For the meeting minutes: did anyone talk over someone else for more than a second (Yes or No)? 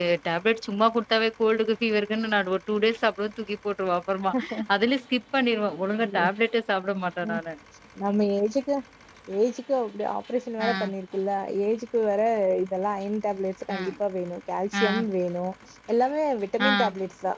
No